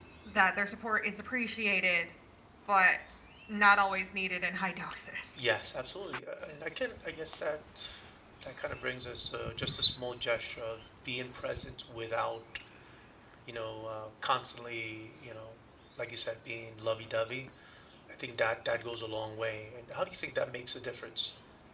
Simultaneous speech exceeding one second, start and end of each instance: none

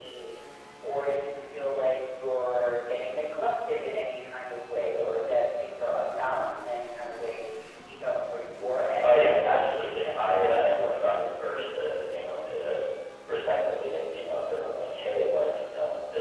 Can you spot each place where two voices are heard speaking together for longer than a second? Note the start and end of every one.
9.0-11.2

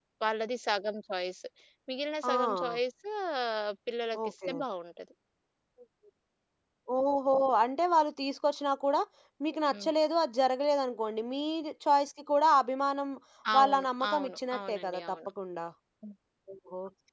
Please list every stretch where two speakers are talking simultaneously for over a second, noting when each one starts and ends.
13.6-15.0

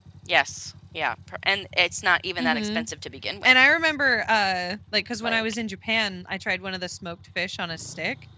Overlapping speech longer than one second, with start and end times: none

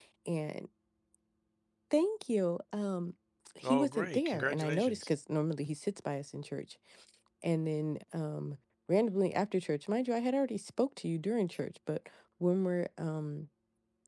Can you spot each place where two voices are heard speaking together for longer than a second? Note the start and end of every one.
3.6-5.1

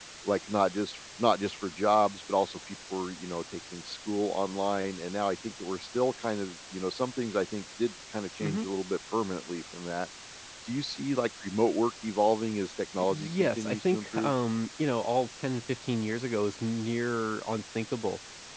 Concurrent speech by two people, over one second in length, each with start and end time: 13.1-14.3

